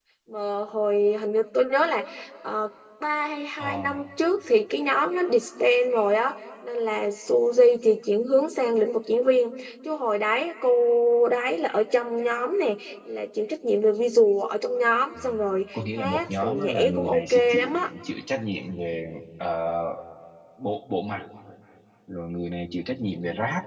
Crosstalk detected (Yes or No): Yes